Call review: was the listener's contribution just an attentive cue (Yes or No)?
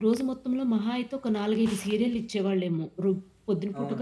No